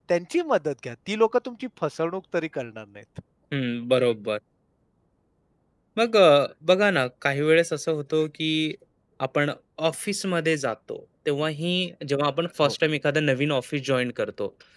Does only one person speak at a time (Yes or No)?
Yes